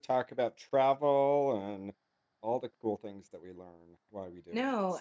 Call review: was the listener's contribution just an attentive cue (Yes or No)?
No